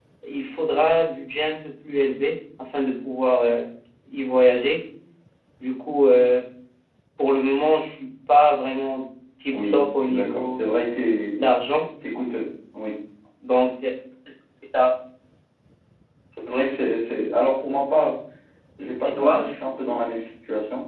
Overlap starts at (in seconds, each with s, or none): 9.5 s